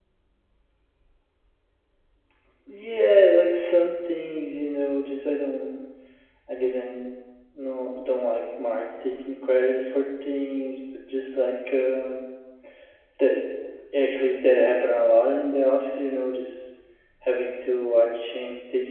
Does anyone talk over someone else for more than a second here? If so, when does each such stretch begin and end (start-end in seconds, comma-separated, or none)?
none